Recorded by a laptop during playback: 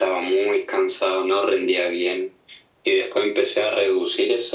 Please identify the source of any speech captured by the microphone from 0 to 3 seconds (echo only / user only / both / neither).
echo only